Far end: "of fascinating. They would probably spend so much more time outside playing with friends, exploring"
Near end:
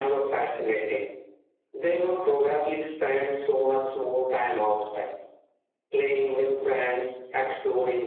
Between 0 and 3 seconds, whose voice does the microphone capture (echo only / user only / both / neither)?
echo only